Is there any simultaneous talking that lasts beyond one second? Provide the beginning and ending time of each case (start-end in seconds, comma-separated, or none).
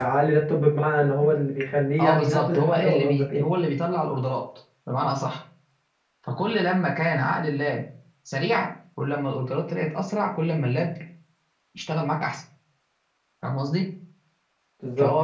2.0-3.4